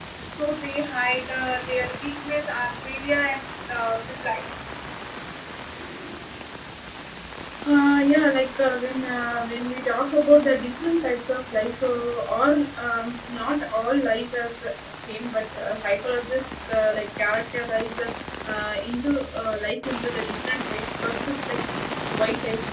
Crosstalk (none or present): none